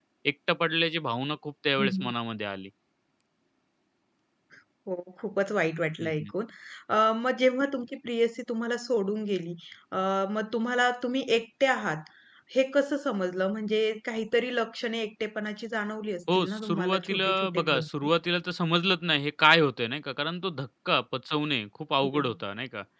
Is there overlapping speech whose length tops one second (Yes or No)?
Yes